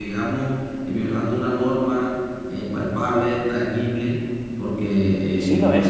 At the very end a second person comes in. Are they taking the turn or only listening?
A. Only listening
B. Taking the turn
B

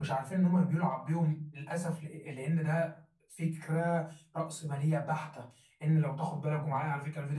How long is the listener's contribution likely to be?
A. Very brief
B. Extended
A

